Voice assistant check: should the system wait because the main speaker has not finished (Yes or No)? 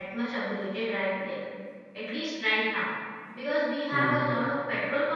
Yes